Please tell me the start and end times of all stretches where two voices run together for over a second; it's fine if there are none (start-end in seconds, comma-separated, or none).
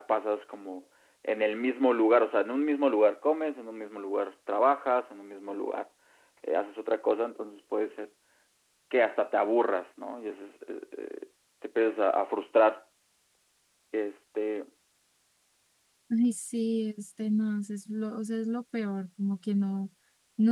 none